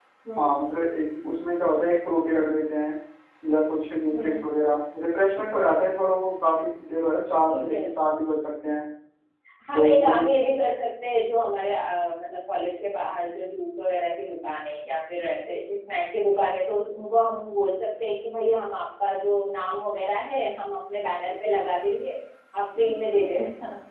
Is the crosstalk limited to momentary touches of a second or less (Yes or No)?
Yes